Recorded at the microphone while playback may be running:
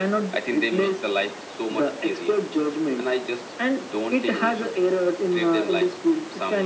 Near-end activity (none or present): none